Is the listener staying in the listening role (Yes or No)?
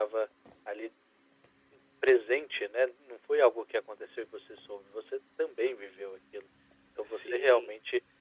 Yes